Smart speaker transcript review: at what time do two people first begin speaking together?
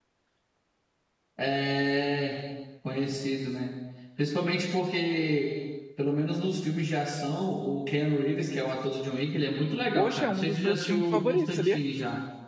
9.9 s

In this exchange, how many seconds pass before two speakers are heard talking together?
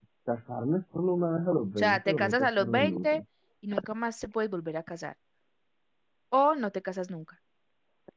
1.8 s

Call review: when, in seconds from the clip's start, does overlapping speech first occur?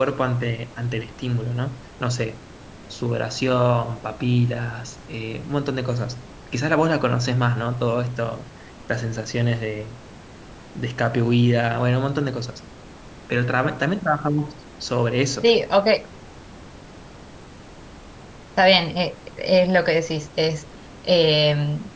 none

